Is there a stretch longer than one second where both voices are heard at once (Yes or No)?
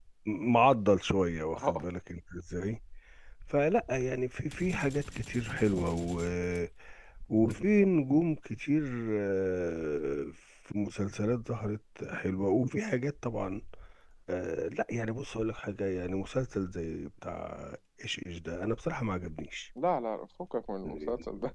No